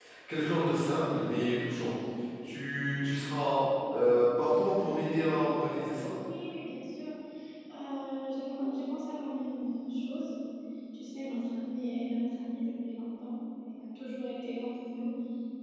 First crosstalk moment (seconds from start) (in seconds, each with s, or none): none